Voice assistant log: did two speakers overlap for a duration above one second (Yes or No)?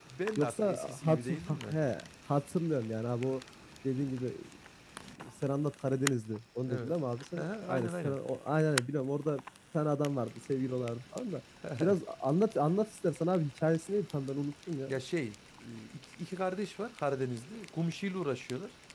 Yes